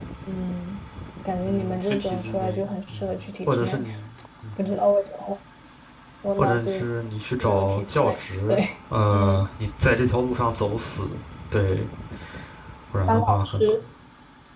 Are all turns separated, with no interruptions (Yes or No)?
No